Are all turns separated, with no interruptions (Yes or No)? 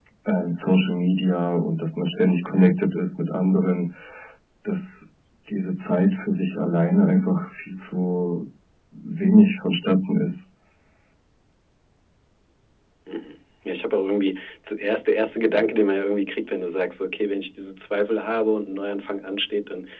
Yes